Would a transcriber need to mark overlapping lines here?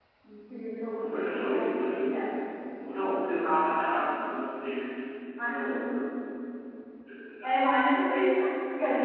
Yes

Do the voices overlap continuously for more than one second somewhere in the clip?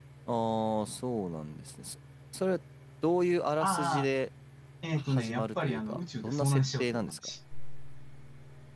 Yes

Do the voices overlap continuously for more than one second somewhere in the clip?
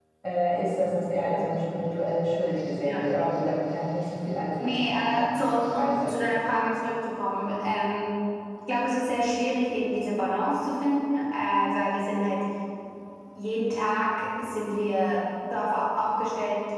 Yes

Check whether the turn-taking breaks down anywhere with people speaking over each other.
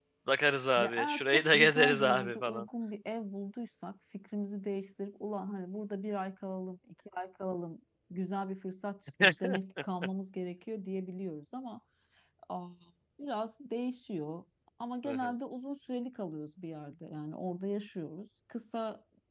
Yes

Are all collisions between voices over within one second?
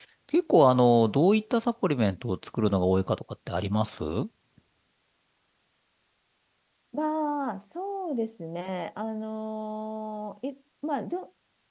Yes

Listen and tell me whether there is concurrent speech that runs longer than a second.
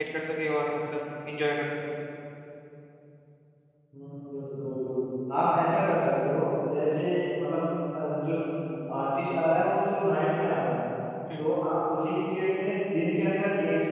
No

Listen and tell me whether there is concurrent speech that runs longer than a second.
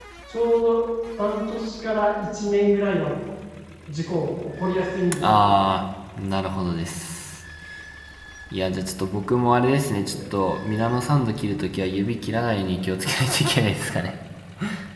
No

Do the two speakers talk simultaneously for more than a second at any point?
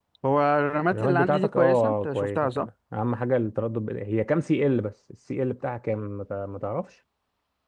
Yes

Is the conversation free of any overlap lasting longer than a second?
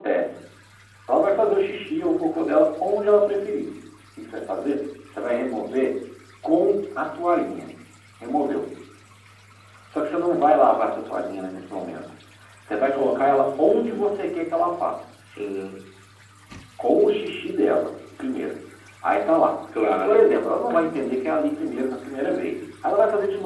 No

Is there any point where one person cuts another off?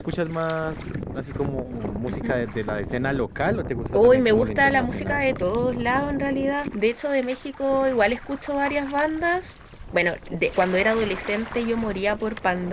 Yes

